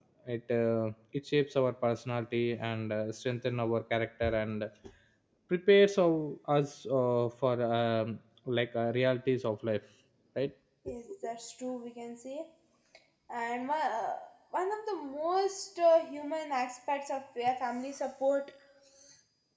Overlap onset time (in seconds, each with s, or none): none